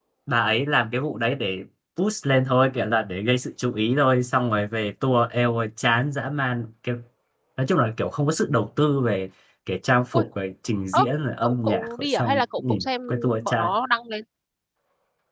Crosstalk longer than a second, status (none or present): present